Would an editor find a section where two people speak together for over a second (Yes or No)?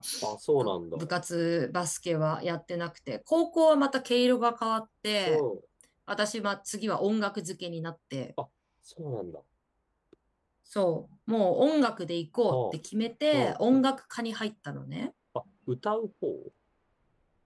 No